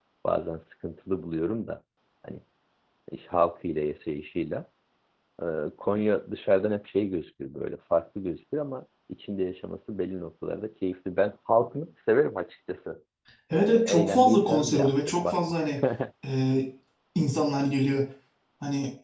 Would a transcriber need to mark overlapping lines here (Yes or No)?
Yes